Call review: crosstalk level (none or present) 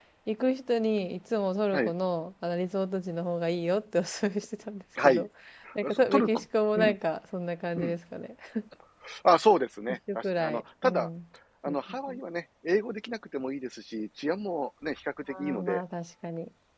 present